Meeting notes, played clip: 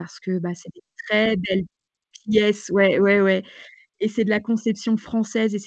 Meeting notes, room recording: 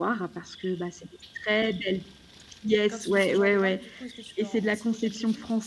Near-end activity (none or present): present